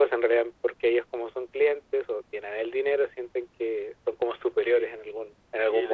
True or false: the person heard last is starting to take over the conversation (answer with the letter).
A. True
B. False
A